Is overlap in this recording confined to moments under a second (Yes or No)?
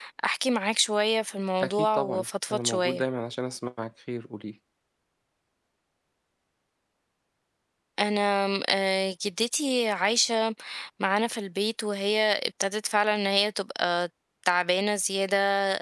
No